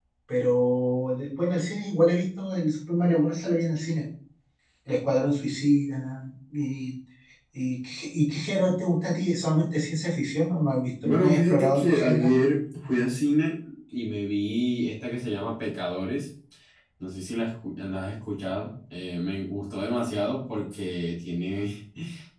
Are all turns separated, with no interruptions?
No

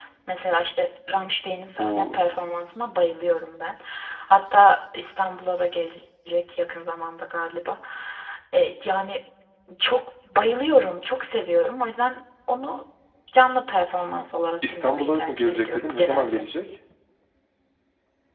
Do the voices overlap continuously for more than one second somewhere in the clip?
Yes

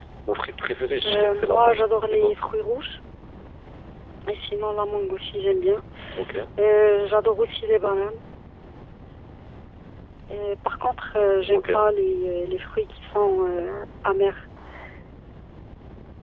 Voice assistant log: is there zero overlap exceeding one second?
No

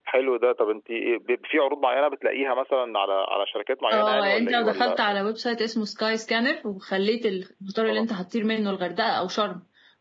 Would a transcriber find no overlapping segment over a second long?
No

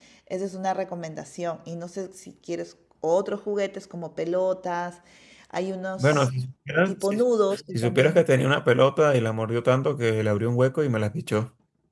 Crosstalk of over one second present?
No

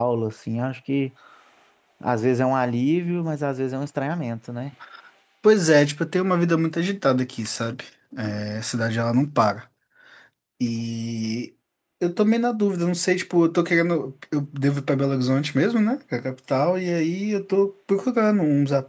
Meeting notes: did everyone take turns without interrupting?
Yes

